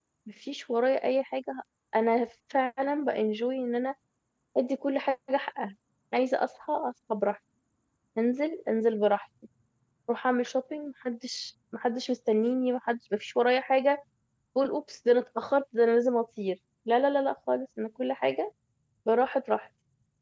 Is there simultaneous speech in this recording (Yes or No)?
No